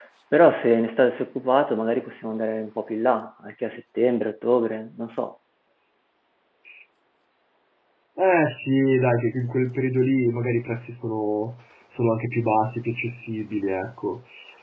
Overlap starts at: none

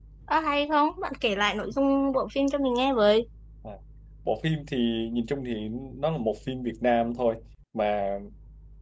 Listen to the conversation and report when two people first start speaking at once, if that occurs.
none

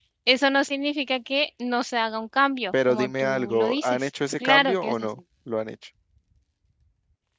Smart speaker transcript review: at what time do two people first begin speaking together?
2.7 s

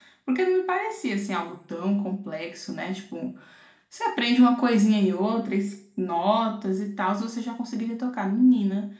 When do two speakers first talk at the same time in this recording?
none

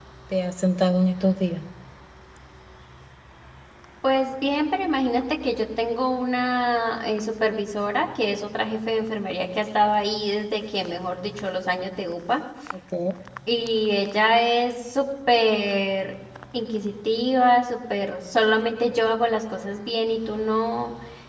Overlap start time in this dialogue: none

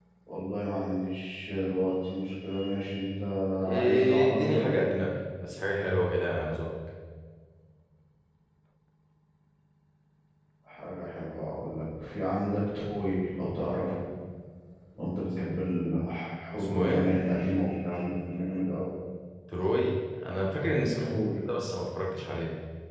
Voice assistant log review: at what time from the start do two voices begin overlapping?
3.8 s

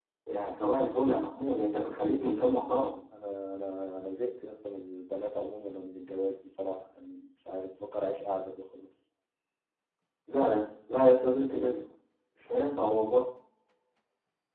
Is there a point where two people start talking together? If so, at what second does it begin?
none

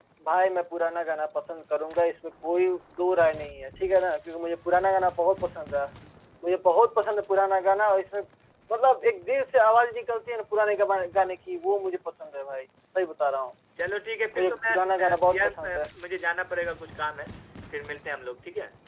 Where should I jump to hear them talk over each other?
14.4 s

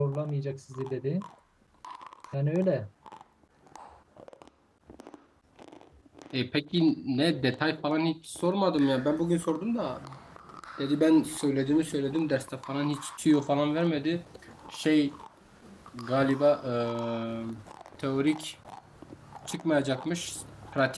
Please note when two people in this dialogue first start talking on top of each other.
none

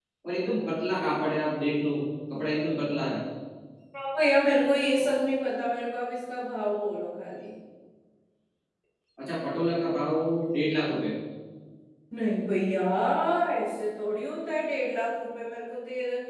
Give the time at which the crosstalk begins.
none

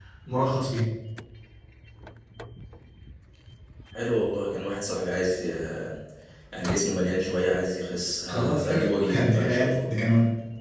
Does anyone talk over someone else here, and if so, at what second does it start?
8.3 s

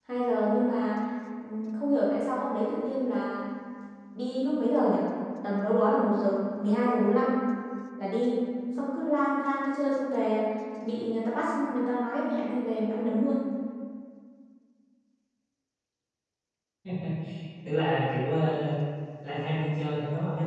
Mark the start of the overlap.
none

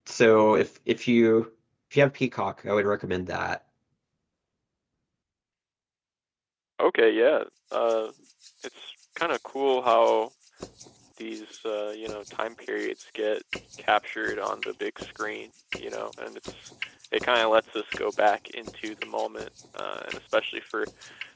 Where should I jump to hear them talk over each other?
none

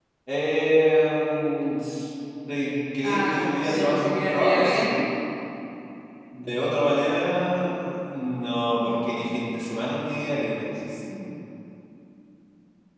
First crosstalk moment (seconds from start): 3.0 s

